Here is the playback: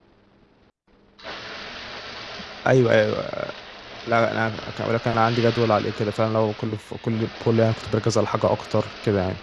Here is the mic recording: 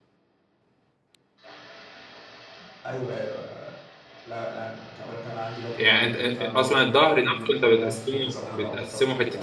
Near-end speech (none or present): present